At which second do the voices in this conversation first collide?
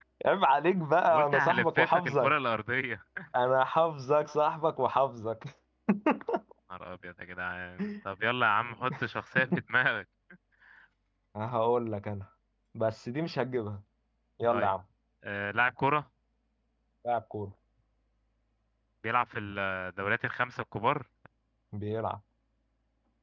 1.1 s

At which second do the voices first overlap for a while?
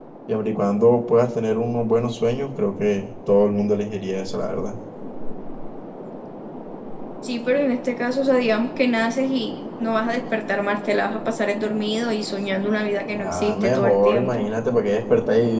13.1 s

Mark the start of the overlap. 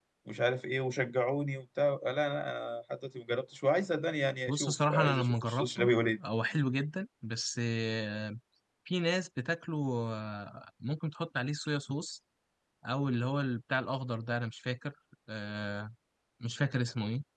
4.5 s

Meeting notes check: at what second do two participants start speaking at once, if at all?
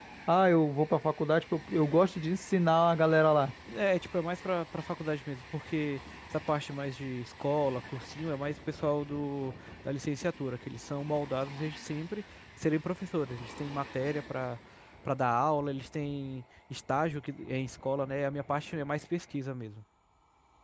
none

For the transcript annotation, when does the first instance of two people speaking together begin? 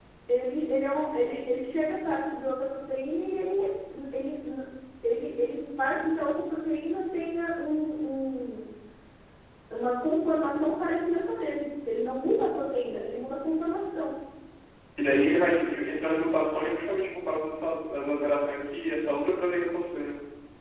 none

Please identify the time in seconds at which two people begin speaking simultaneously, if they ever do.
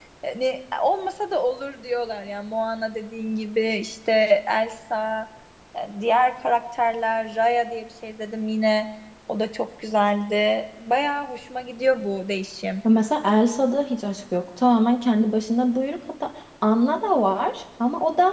none

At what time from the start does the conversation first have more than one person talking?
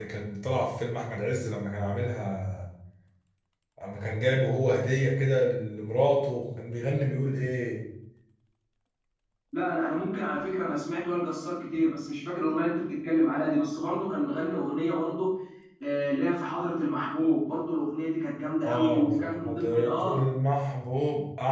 18.6 s

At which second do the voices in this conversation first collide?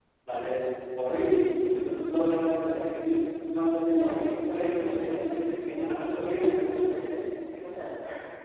3.9 s

